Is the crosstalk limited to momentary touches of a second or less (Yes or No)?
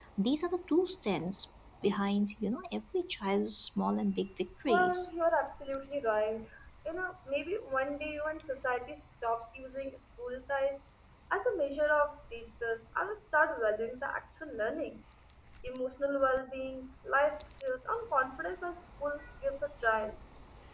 Yes